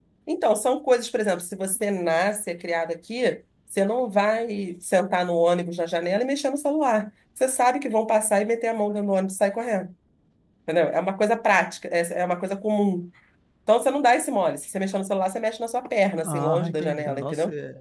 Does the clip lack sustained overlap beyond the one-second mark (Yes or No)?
No